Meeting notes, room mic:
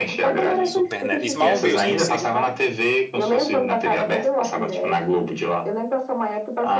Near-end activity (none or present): present